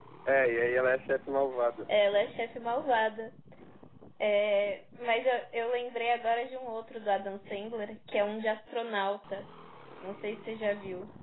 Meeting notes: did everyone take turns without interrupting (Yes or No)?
Yes